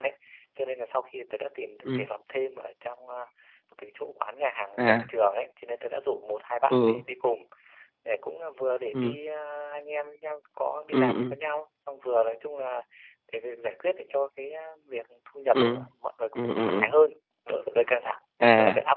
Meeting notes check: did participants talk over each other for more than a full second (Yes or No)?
No